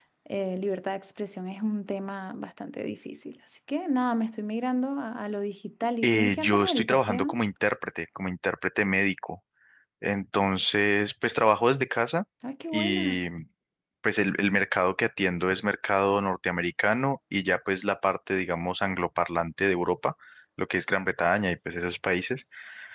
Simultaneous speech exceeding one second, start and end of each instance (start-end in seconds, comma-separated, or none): 6.0-7.4